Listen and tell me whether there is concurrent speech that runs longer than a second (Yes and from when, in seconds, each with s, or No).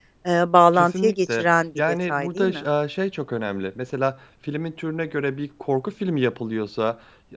Yes, from 0.7 s